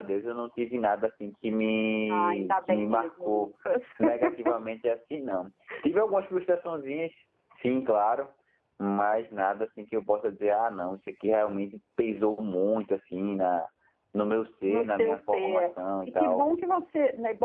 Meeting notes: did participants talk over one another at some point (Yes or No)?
Yes